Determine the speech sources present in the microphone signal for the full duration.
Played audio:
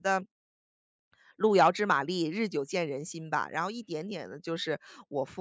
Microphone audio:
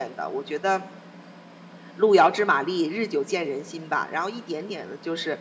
echo only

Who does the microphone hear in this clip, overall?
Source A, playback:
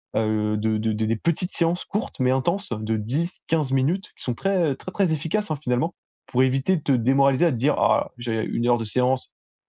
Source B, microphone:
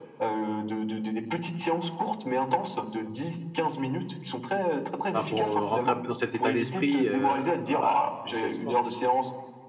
both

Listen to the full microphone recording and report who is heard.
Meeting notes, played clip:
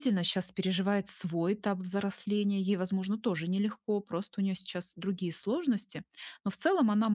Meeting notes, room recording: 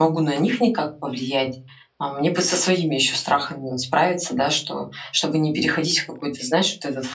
user only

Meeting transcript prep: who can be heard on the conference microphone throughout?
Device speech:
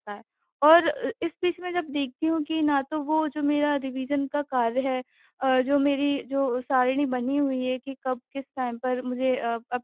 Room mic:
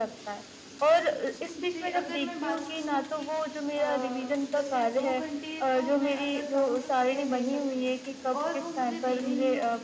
both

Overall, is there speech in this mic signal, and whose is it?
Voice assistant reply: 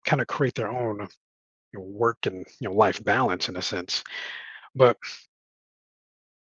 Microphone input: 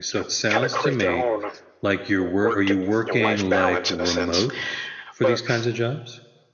both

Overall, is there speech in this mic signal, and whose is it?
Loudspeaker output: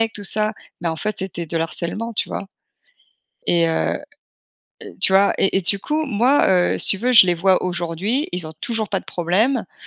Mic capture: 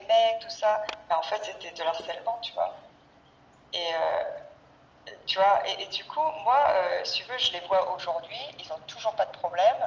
echo only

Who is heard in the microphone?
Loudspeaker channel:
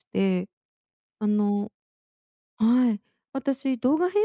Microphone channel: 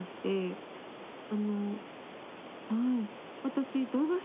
echo only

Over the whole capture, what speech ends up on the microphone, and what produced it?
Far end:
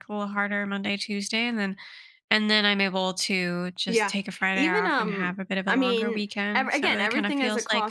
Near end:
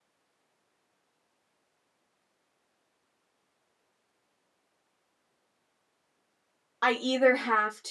user only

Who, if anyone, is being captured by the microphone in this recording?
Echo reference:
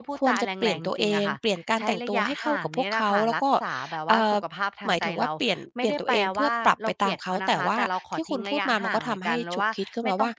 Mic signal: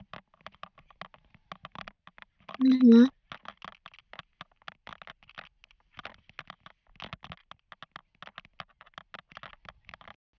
user only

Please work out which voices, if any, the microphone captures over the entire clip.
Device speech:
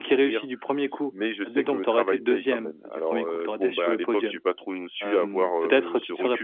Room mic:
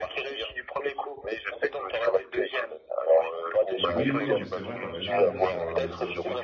both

